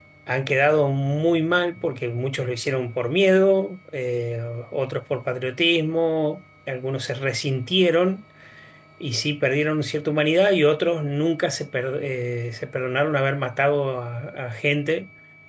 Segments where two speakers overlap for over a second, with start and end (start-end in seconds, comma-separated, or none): none